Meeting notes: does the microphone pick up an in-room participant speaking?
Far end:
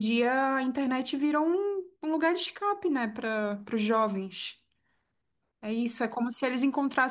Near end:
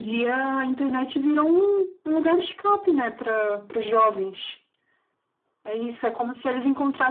No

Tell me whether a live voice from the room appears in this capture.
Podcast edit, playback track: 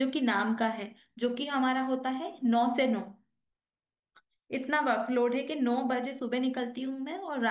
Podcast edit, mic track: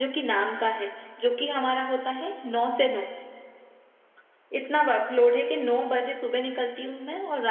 No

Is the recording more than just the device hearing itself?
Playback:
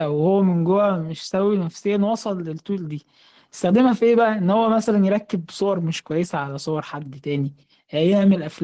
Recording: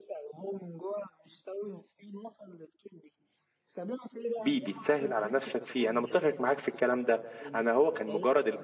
Yes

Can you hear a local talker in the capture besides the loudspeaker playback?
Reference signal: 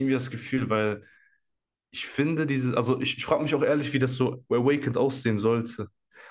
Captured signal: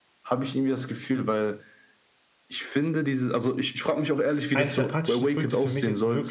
Yes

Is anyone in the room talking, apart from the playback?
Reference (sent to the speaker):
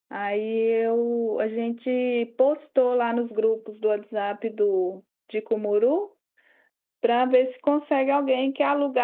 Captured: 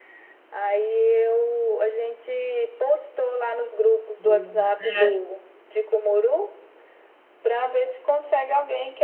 Yes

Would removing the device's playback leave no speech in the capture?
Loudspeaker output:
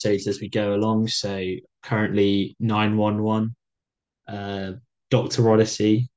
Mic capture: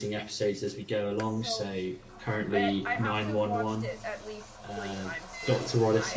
No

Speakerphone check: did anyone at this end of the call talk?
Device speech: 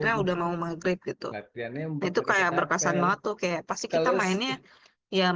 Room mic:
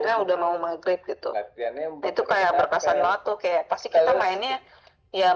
No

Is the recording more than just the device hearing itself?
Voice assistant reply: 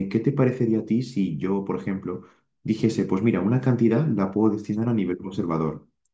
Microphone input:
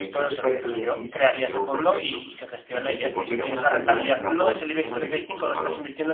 Yes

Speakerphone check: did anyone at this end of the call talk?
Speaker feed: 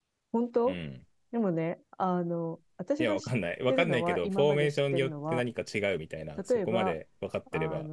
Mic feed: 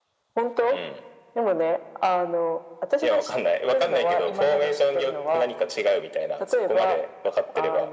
No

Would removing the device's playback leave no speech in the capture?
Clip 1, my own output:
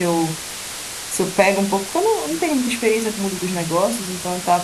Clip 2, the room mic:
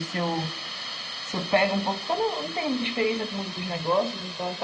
Yes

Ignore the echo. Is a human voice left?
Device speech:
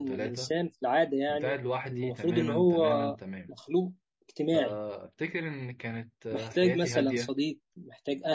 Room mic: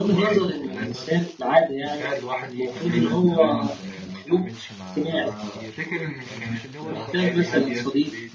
Yes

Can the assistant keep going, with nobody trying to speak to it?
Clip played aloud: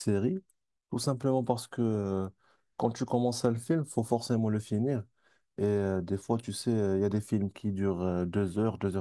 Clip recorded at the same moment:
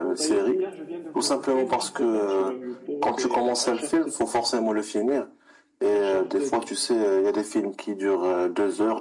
No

